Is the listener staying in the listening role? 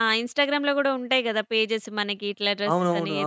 No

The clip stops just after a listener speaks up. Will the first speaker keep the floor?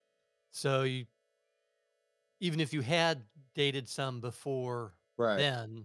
Yes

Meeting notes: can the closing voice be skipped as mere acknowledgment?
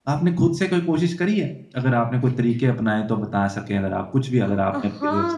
No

